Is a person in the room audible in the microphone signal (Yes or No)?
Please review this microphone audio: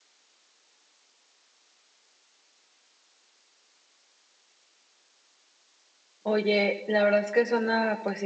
Yes